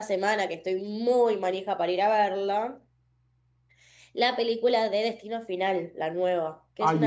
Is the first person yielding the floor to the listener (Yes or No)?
Yes